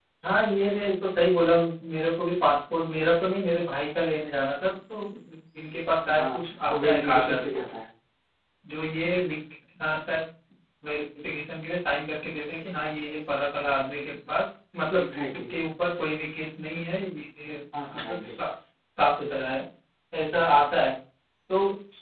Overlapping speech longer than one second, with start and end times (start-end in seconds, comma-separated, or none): 6.0-7.5